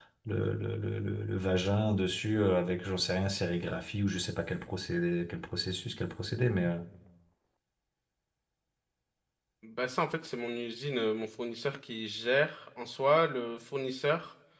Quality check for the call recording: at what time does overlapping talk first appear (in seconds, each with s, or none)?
none